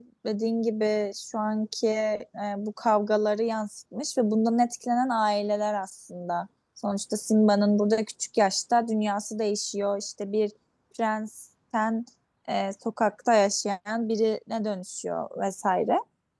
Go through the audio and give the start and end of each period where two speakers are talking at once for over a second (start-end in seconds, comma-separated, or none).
none